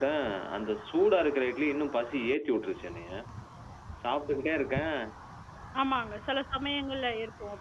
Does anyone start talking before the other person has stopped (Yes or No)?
No